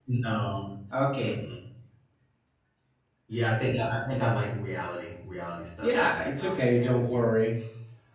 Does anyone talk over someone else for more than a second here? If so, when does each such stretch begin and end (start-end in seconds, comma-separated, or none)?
5.8-7.2